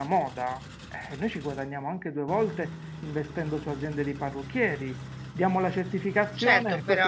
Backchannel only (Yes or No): No